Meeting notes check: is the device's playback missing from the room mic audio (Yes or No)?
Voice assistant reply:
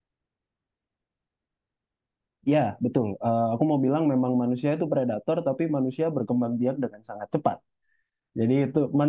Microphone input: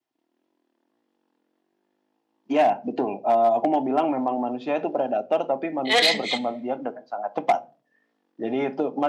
No